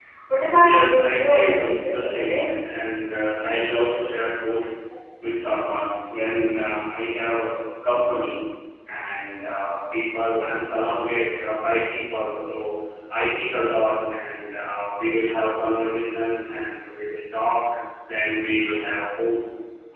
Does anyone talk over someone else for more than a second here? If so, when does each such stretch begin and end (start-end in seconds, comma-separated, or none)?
0.5-2.4